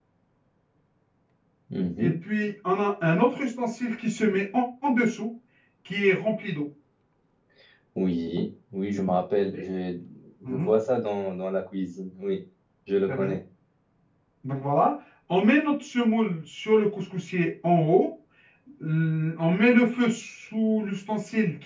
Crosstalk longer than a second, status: none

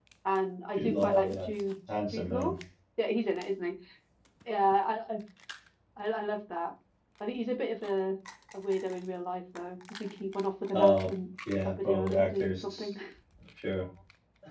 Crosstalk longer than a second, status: present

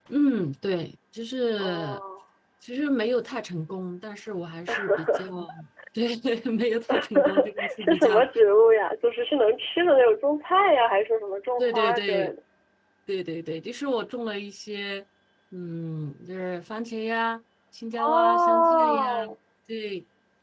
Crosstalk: present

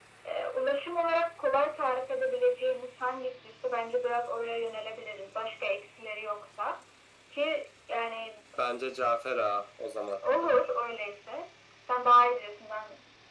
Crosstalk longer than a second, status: none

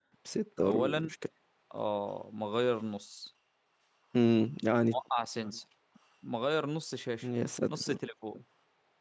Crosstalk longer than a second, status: none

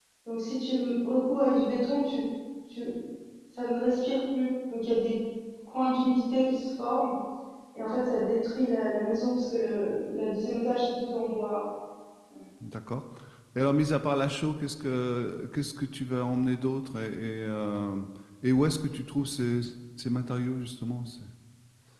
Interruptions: none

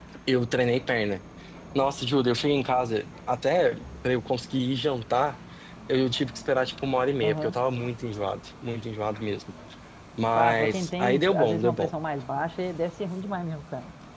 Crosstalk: present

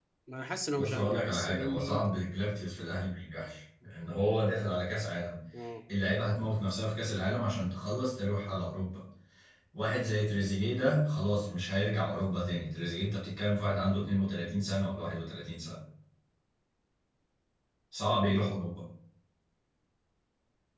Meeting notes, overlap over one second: present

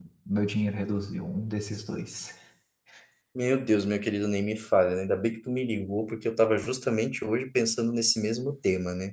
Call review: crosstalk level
none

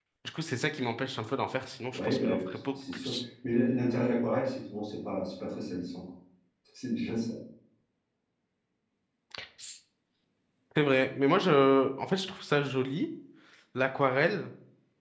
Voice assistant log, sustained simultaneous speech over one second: present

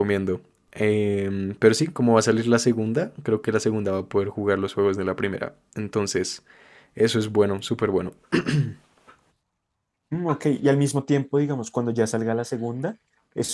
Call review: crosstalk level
none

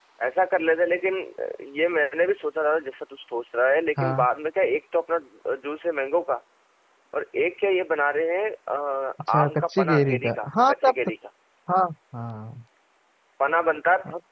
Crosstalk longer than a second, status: present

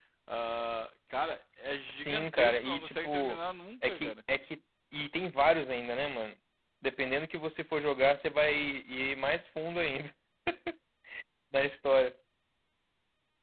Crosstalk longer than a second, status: present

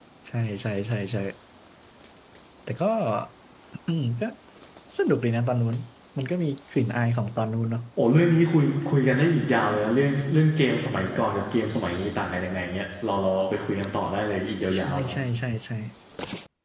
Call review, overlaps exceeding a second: none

